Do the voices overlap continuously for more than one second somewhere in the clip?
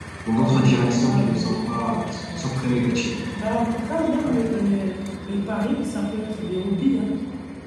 Yes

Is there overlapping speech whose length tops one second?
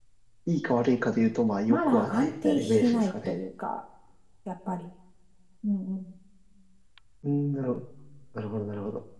Yes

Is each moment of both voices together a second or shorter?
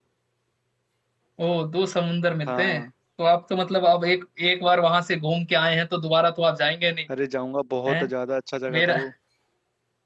Yes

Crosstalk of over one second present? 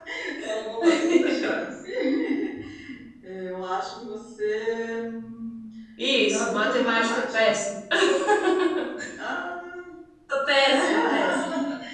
Yes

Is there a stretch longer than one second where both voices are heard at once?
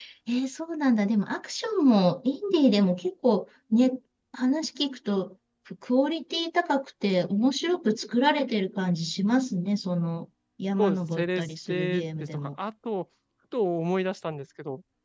Yes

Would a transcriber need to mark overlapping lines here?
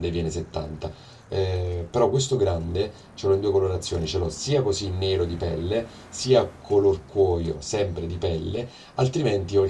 No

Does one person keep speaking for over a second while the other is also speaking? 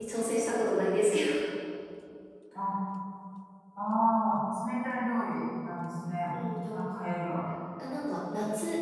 No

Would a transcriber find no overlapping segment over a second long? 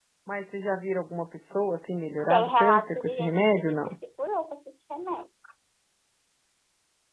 No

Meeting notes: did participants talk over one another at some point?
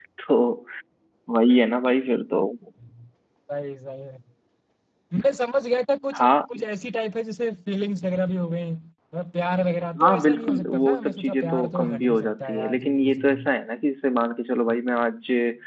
Yes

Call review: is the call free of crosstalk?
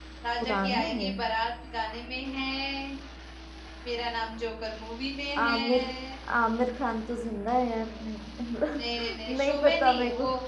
No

